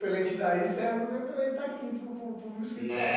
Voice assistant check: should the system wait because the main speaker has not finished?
No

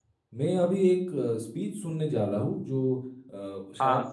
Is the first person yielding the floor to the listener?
No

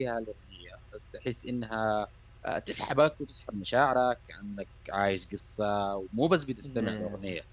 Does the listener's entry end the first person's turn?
No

